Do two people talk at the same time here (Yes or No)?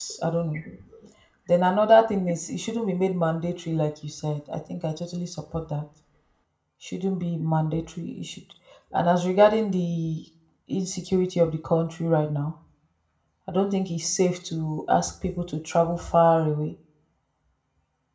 No